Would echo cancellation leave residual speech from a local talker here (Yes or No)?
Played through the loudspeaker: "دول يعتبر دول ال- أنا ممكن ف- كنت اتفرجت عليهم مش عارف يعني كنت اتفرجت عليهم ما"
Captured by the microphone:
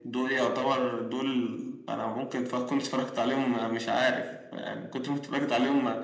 No